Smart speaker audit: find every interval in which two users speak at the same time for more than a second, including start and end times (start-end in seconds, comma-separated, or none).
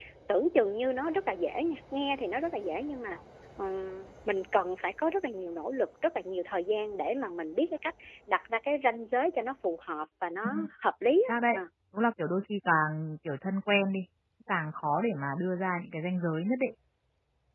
none